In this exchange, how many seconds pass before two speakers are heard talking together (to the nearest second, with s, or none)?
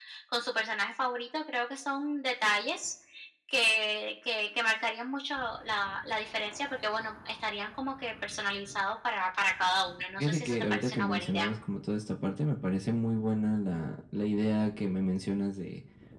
10 s